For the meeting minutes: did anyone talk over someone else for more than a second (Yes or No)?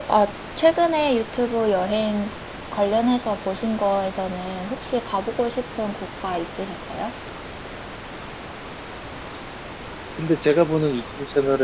No